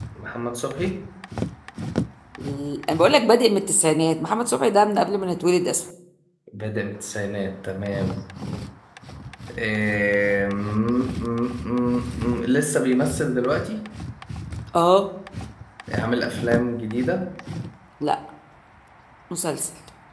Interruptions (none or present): none